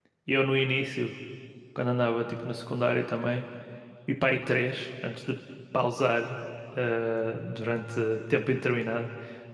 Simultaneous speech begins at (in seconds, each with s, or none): none